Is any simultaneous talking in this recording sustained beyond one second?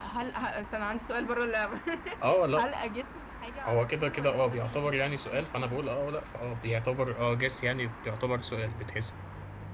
Yes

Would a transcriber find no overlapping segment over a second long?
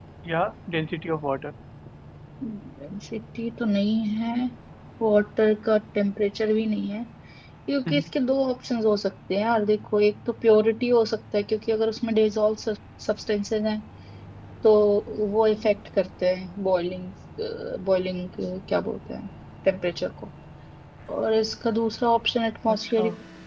Yes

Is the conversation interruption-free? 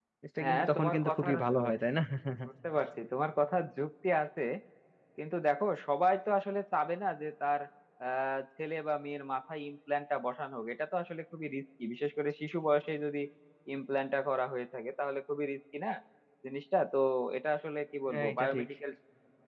No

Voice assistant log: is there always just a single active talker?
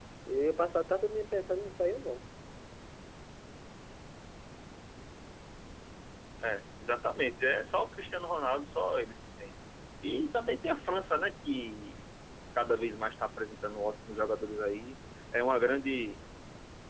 Yes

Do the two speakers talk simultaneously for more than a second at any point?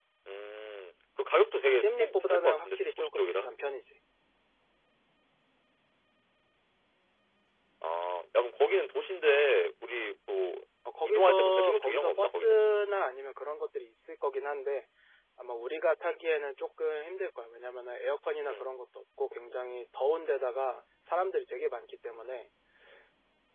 Yes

